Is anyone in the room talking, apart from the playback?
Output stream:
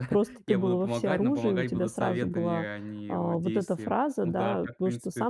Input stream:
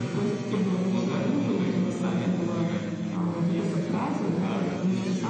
No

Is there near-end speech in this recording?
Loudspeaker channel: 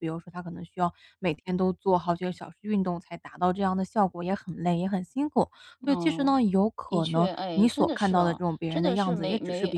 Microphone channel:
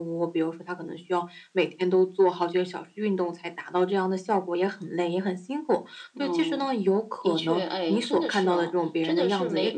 No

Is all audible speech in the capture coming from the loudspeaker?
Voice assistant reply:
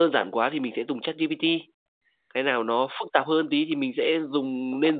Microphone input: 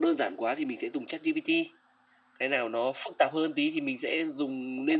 Yes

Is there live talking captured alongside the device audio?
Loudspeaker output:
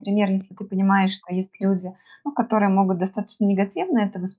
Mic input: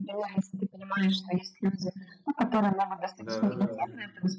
Yes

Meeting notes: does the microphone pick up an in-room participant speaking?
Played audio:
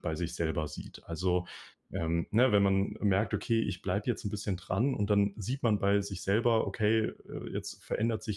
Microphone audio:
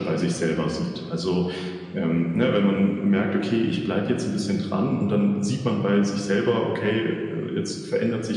No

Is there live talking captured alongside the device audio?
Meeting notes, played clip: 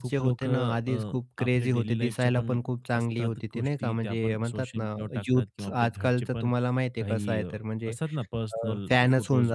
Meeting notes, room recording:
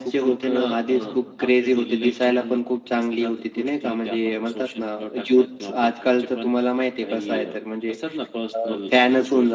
Yes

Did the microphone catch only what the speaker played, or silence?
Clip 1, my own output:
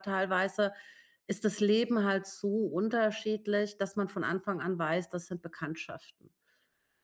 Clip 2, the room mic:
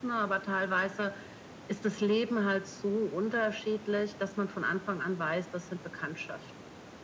Yes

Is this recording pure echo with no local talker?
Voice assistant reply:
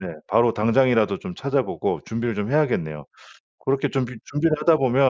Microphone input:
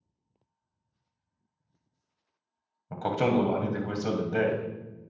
No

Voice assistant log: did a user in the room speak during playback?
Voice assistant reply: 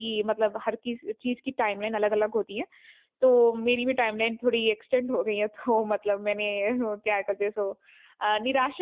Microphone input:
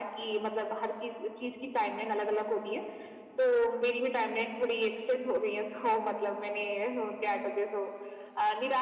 No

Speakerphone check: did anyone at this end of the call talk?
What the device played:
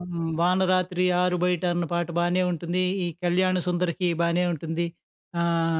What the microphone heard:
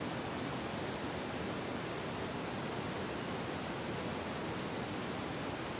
No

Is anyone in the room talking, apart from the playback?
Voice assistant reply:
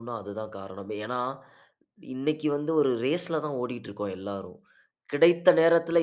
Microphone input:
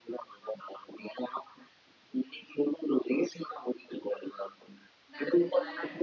Yes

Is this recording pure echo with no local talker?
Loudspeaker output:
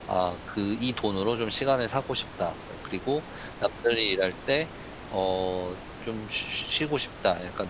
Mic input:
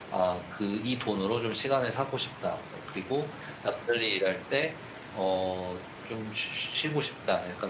Yes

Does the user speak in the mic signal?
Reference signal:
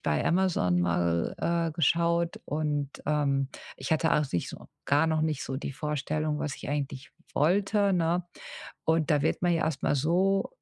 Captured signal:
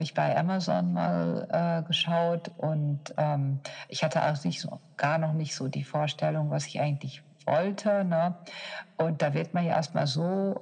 No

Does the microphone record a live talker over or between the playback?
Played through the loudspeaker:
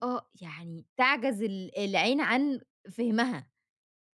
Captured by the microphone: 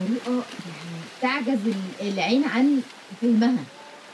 No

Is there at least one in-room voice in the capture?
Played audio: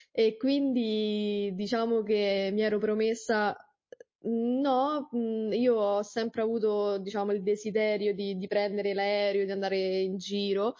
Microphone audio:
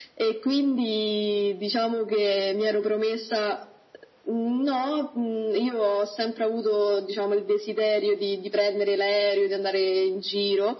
No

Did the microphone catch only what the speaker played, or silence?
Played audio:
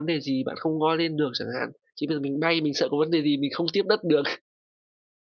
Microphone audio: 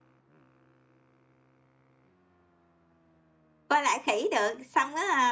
No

